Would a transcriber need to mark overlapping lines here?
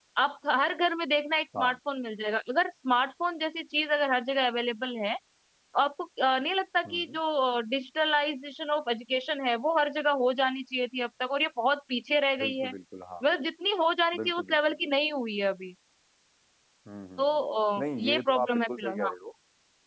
Yes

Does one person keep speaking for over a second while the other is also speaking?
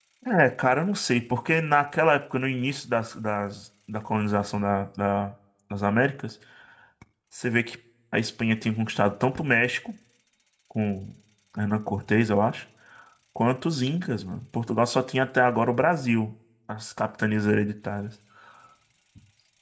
No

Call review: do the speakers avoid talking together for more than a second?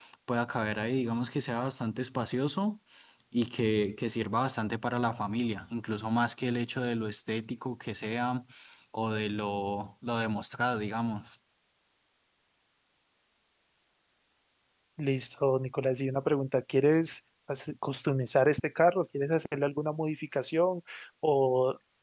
Yes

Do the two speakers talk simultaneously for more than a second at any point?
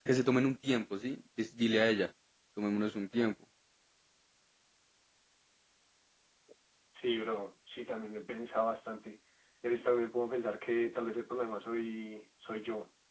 No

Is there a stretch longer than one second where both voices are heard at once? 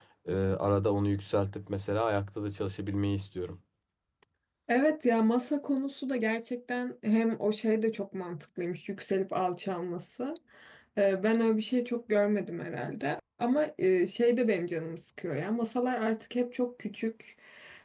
No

